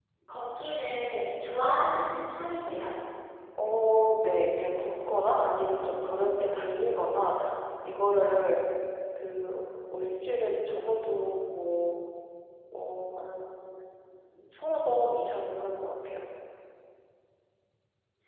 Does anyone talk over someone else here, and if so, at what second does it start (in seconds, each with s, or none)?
none